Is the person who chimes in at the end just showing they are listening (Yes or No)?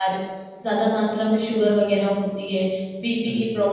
Yes